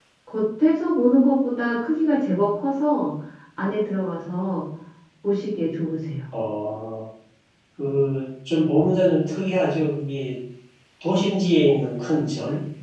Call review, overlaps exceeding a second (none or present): none